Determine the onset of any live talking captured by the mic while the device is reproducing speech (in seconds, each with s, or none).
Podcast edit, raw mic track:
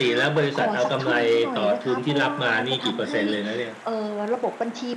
none